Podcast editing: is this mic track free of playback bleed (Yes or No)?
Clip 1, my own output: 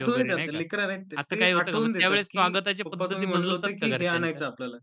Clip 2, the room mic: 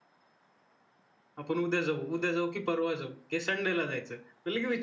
Yes